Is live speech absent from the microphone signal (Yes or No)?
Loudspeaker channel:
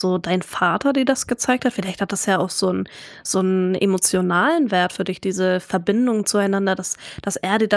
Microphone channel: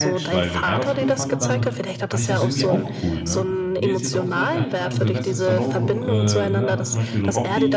No